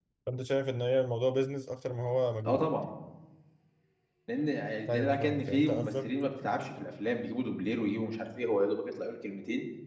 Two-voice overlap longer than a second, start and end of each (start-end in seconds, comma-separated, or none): 4.9-6.1